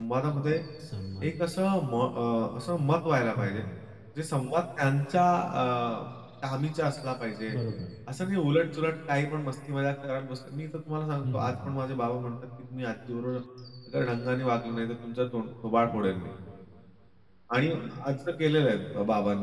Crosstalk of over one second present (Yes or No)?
No